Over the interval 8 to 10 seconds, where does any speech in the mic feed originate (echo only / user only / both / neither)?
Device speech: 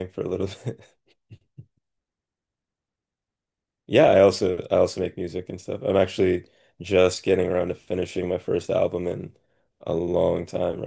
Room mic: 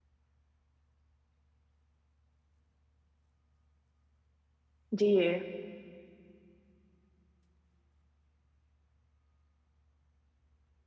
neither